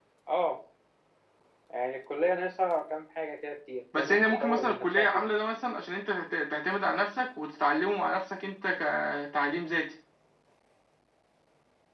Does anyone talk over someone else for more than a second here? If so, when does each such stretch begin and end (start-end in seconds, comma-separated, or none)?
4.0-5.3